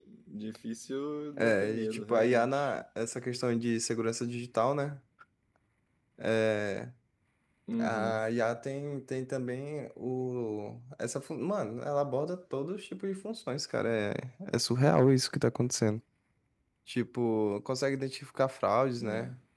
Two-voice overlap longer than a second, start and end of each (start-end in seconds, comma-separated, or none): 1.4-2.7